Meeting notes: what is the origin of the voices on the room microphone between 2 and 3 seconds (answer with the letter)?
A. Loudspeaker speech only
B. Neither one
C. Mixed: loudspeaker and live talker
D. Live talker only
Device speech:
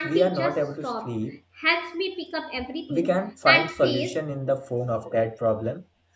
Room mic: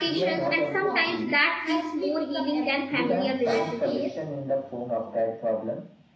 C